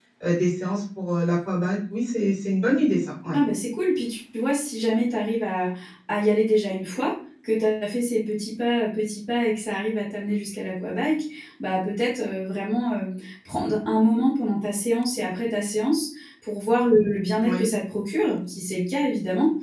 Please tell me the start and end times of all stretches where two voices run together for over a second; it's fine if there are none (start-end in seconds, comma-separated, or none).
none